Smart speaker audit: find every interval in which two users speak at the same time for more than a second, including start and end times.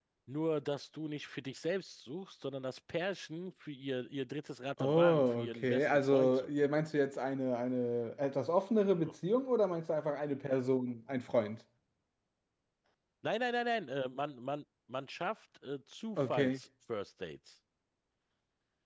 4.8-6.5

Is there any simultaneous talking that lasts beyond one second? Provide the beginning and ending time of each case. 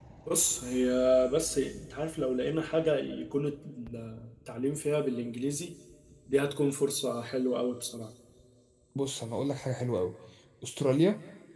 none

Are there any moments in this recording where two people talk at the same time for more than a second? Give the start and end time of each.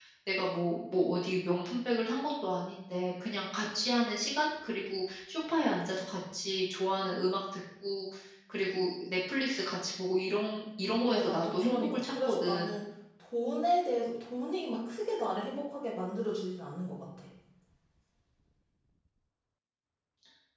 11.0-12.7

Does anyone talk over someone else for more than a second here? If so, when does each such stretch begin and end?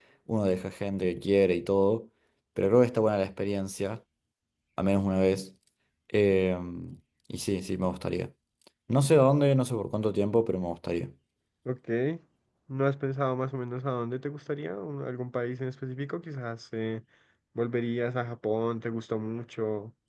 none

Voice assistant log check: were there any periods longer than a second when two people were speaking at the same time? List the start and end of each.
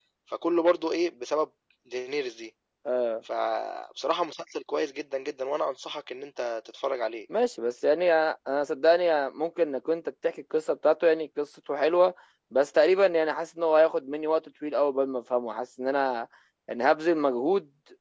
none

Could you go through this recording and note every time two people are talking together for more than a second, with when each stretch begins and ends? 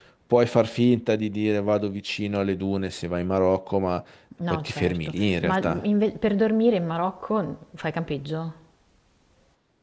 4.5-5.8

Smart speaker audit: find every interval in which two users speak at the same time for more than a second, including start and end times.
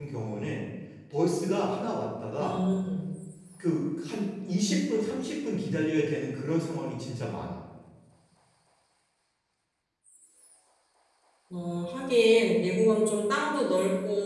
none

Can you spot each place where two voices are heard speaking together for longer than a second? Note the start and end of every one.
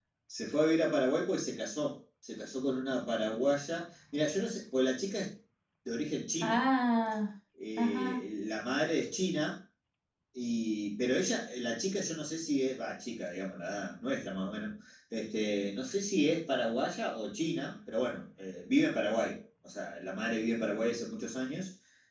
none

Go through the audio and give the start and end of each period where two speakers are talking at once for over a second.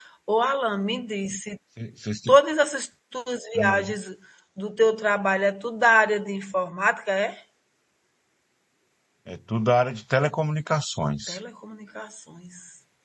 none

